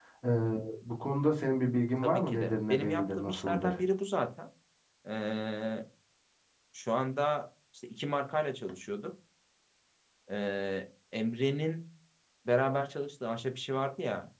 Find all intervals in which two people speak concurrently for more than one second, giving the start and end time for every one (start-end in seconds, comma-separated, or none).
2.0-3.8